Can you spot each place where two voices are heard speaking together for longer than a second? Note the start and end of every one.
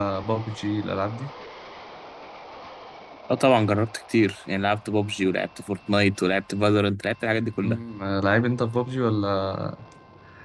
none

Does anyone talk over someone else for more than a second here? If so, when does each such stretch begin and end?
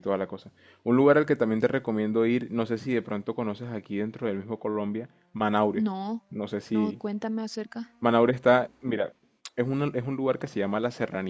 none

